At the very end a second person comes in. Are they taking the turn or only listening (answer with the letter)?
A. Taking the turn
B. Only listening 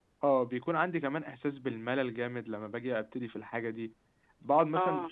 B